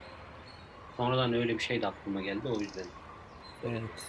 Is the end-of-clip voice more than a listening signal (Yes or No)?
Yes